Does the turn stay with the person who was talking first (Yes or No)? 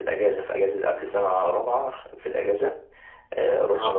Yes